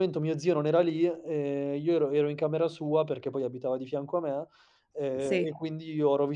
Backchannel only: Yes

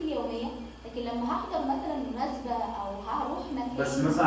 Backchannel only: No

